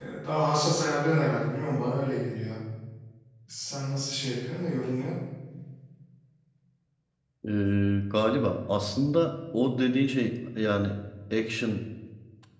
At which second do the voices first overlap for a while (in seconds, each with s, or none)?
none